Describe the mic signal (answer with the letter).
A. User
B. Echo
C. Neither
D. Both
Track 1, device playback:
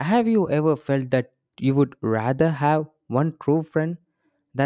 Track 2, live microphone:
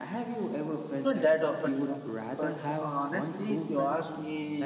D